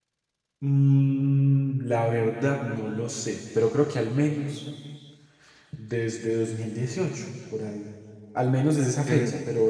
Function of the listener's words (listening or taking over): listening